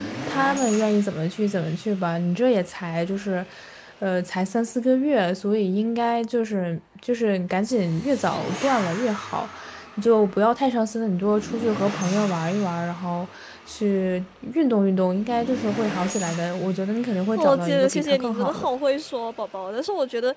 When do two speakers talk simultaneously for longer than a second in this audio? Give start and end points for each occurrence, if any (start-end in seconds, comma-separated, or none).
17.4-18.6